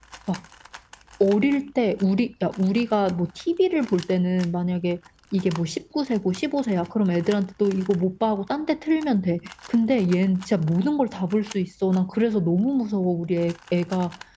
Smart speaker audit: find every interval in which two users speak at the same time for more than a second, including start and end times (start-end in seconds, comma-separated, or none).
none